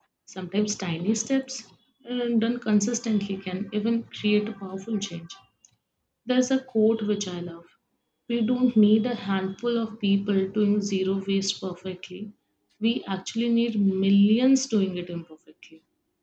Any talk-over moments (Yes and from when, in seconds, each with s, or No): No